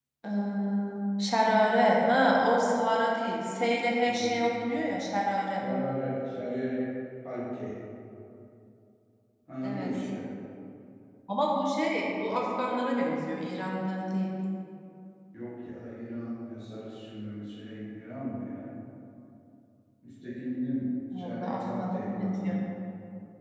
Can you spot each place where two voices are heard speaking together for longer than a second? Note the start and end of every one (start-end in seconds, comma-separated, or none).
21.2-22.5